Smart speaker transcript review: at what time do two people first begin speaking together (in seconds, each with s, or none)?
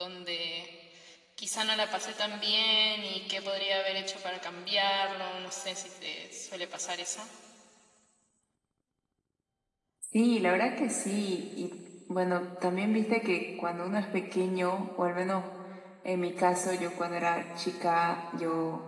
none